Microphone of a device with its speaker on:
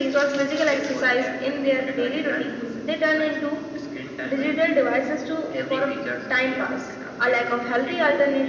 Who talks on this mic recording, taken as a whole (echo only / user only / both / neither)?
echo only